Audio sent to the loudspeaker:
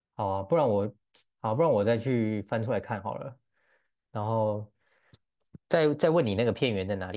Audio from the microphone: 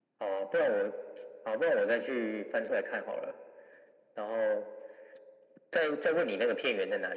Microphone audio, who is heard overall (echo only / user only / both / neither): echo only